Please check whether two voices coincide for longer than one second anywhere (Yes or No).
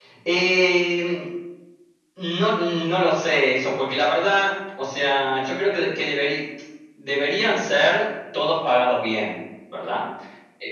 No